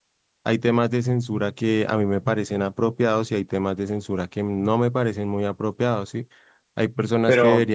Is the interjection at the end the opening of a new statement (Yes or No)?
No